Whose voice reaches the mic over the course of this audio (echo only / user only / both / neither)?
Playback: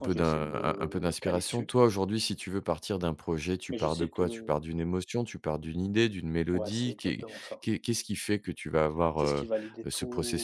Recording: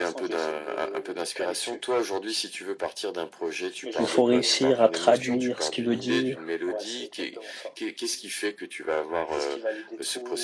both